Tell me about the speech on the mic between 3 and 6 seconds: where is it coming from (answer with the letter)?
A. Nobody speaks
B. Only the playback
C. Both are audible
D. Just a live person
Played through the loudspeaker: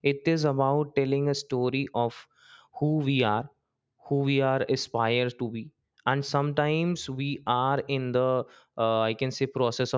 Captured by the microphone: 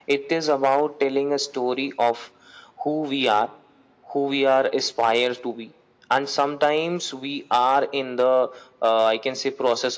B